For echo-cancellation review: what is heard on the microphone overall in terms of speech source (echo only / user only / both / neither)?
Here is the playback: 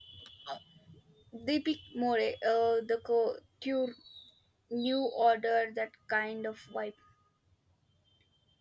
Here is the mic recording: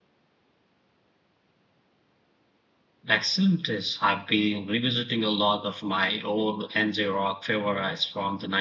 user only